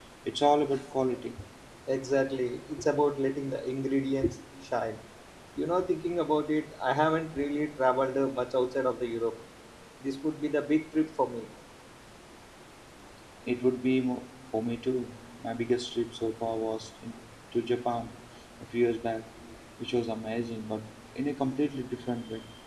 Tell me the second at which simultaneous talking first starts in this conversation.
none

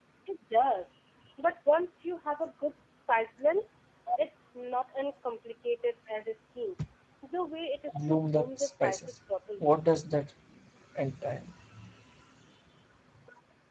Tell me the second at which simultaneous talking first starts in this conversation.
8 s

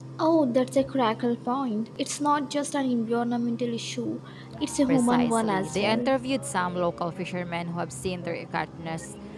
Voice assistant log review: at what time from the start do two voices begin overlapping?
5 s

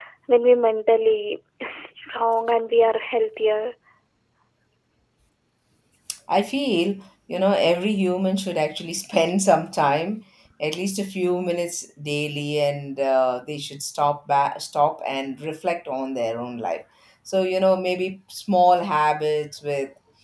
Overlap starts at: none

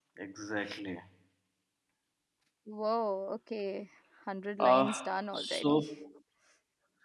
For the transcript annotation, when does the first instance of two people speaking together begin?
5 s

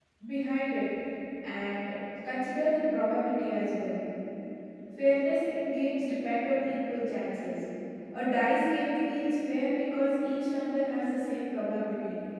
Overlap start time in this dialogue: none

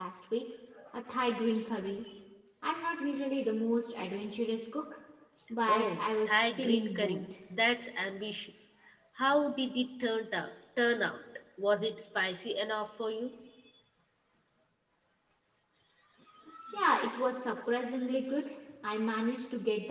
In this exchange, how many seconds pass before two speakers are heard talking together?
6 s

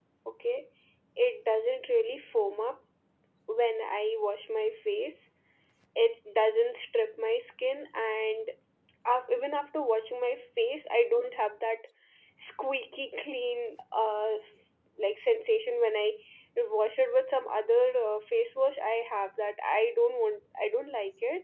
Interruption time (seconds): none

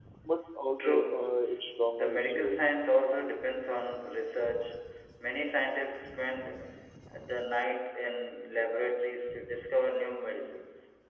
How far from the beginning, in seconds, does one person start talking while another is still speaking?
1 s

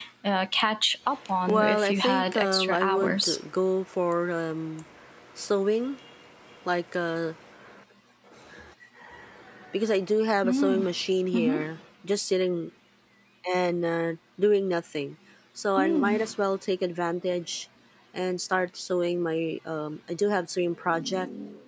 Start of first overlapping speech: 1 s

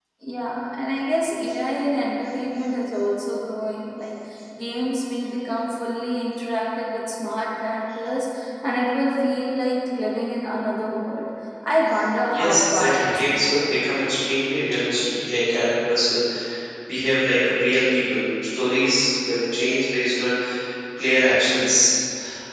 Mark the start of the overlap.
12 s

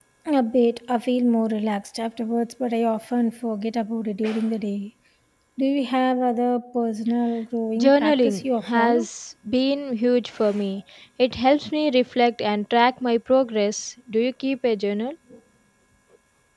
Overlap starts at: 8 s

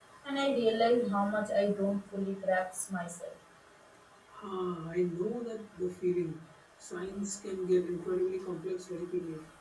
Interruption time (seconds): none

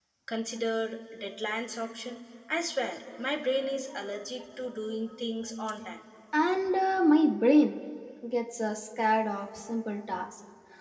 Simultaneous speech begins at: none

